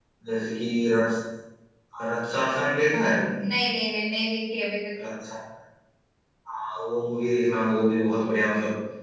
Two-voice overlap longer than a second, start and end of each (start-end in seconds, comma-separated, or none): none